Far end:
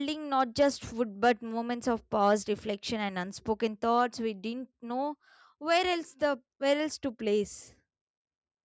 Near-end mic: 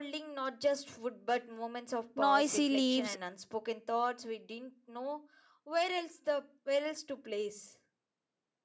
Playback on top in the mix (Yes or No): No